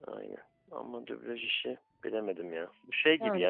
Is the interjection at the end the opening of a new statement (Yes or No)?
No